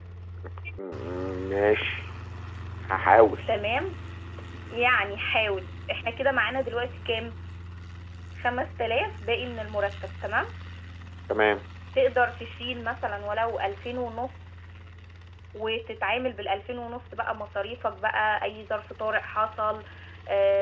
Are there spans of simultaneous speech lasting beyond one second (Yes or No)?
No